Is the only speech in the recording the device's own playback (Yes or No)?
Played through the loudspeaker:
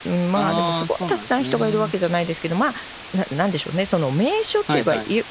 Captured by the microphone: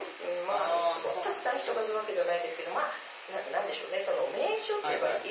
Yes